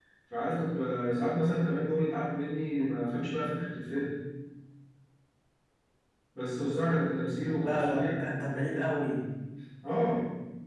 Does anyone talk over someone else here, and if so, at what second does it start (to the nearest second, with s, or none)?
8 s